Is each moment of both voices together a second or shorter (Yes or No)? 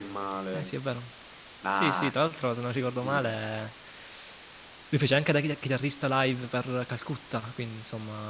Yes